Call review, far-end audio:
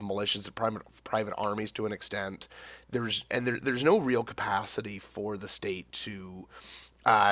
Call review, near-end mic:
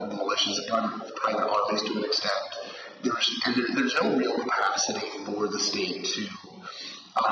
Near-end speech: none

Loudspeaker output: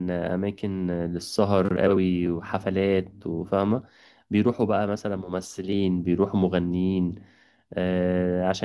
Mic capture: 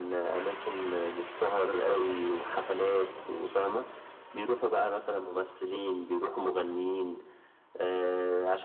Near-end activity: none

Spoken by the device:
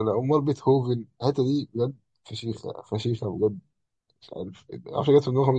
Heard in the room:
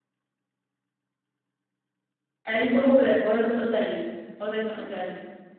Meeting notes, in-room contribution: present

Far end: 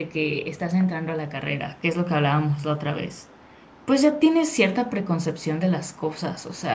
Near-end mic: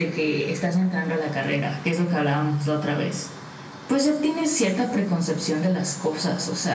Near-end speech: none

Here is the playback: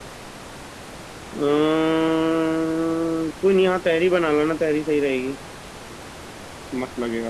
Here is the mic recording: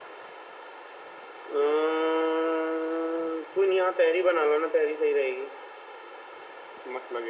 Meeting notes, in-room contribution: none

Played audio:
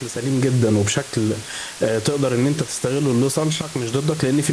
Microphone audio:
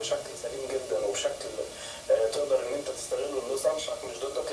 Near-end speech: none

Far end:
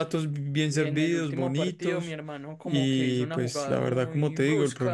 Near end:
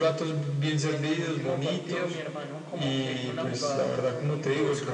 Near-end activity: none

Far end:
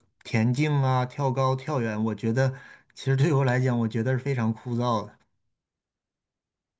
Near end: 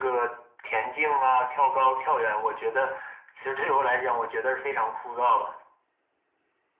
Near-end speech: none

